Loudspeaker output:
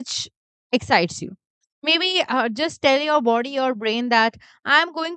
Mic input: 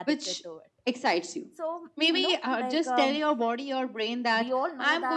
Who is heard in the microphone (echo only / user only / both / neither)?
both